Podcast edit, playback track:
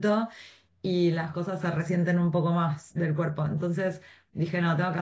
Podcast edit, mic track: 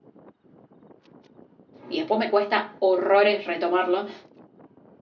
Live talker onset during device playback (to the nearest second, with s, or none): 2 s